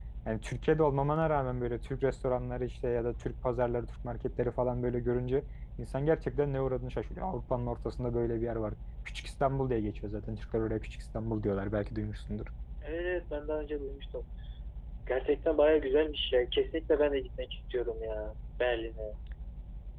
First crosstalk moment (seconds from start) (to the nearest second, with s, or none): none